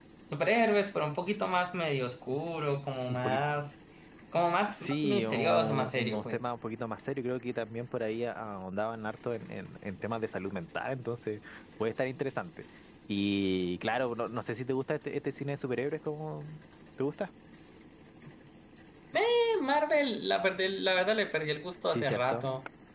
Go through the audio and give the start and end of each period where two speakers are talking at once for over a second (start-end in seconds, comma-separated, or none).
4.7-6.4